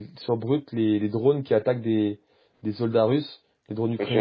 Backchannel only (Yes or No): No